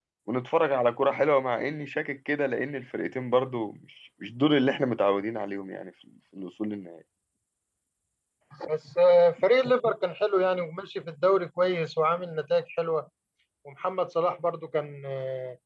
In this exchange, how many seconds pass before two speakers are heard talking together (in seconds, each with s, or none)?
none